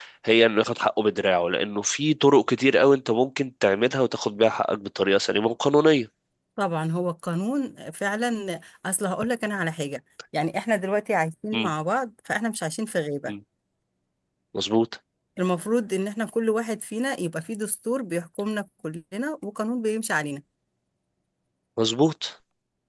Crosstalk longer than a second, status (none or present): none